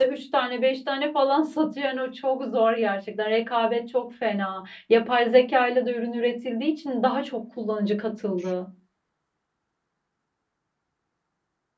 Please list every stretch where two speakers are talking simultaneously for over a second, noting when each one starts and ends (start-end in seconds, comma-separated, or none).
none